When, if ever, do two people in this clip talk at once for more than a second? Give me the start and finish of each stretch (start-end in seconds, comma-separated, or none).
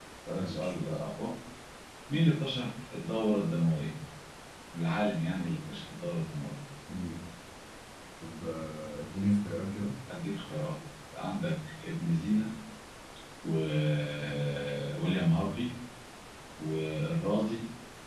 none